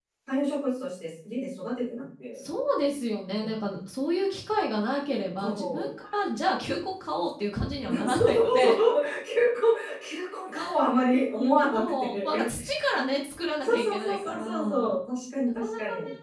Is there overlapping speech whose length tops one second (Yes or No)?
Yes